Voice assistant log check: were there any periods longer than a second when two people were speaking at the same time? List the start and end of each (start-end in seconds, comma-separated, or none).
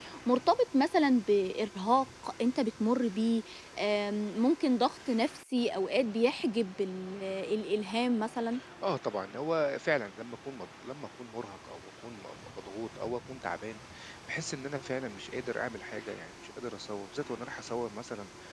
none